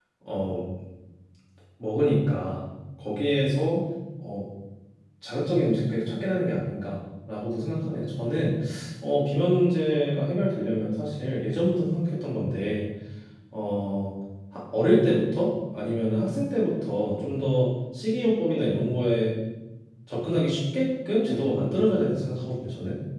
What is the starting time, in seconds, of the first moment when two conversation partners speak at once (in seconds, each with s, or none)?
none